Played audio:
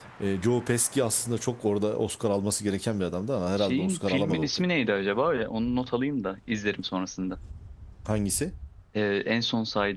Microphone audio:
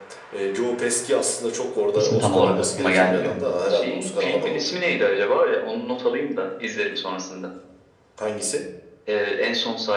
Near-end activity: present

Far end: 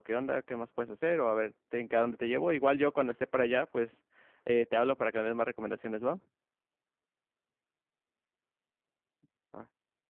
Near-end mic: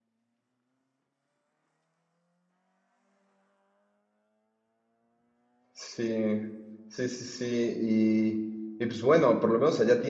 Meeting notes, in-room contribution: present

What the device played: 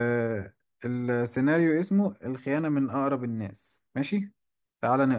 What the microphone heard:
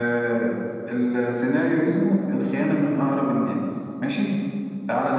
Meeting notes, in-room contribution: none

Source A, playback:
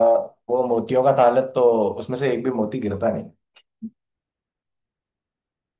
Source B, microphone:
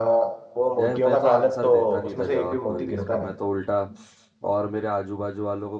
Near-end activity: present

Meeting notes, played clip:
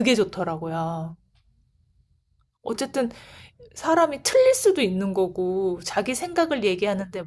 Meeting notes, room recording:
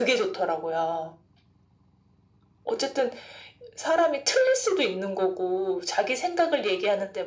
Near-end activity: none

